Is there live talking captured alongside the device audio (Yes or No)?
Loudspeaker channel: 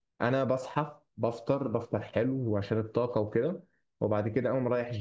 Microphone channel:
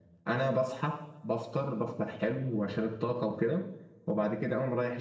No